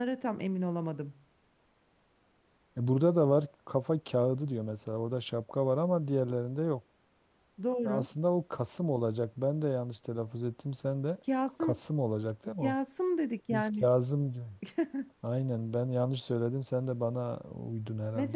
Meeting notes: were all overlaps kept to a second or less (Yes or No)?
Yes